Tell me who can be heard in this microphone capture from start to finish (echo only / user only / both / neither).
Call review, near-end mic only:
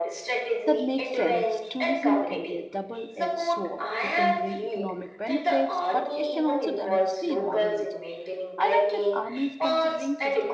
both